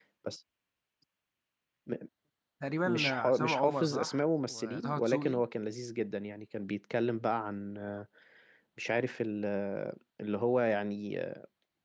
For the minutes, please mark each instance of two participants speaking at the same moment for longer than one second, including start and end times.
2.8-5.4

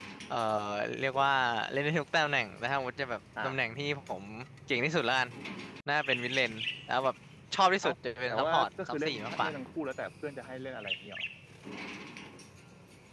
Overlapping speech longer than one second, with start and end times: 8.3-9.5

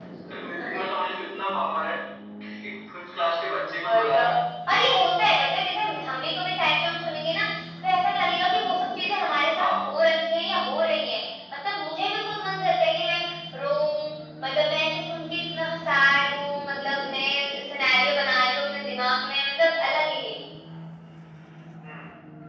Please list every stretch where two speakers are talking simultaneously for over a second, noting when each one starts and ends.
none

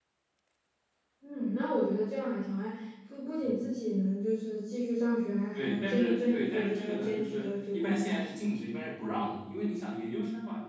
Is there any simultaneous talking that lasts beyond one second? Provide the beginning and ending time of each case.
5.5-8.2

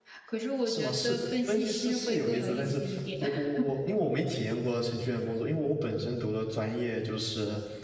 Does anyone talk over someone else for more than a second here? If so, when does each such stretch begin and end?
0.7-2.8

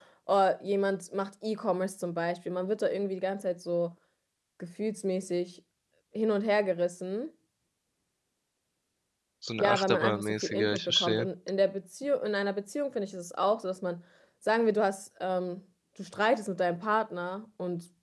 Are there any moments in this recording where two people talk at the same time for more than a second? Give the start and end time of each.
9.6-11.3

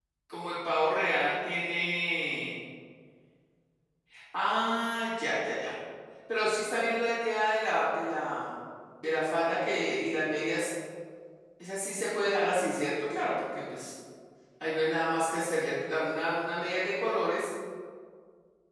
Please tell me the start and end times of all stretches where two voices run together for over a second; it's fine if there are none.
none

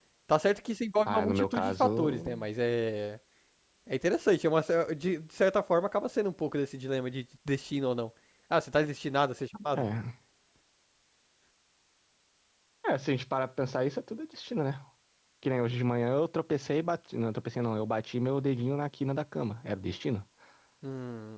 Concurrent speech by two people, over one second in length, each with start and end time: 1.1-2.4

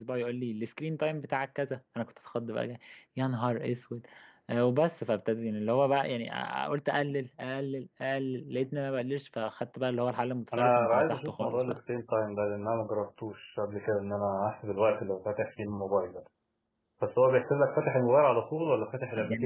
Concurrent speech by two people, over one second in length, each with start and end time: 10.6-11.8

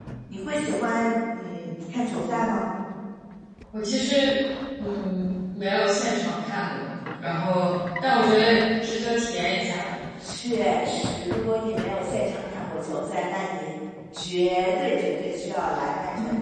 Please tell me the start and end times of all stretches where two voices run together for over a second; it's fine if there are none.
none

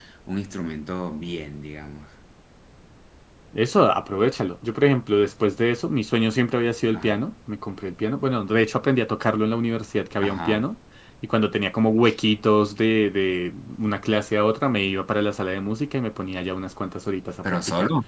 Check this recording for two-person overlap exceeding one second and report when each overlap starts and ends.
none

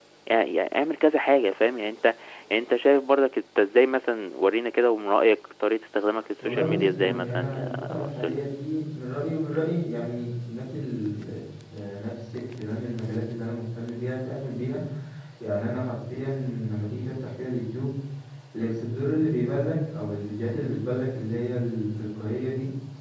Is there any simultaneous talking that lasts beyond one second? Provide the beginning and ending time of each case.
6.4-8.4

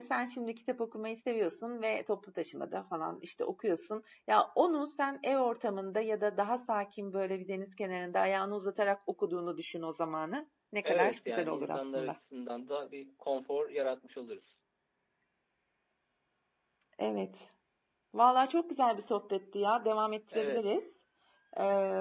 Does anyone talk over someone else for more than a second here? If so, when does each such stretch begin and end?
10.8-12.2

